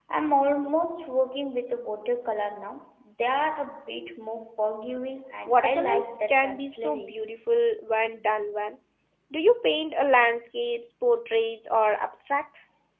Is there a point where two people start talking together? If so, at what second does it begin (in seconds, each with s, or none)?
5.5 s